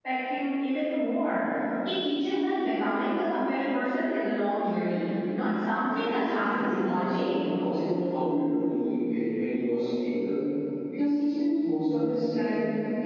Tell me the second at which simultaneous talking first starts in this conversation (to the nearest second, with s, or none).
6 s